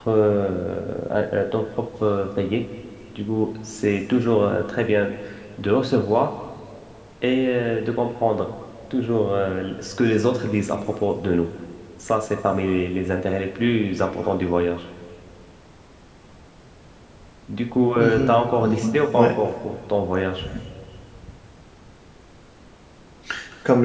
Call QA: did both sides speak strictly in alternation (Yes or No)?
No